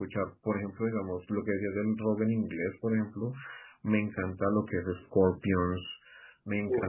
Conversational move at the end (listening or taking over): listening